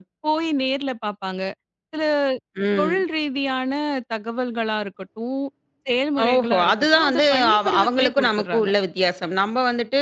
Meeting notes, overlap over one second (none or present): present